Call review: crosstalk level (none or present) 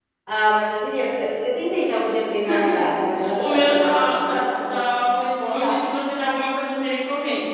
present